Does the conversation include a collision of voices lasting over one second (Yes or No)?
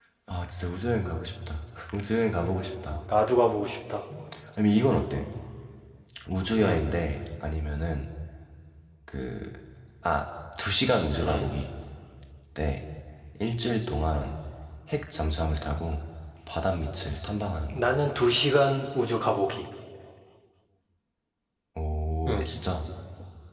No